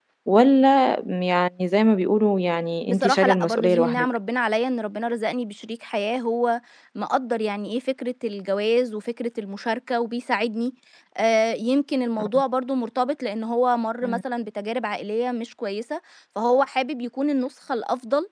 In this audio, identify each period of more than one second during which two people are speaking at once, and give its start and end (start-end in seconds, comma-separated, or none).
2.8-4.0